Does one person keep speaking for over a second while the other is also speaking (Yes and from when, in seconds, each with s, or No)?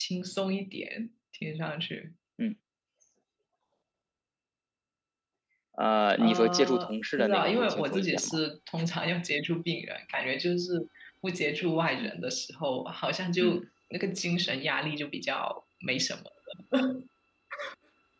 Yes, from 6.2 s